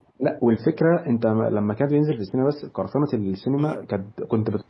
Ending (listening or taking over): listening